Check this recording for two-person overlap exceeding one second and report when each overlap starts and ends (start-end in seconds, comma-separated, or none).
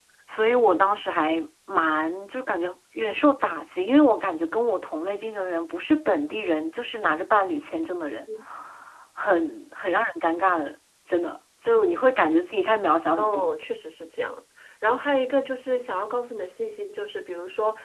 none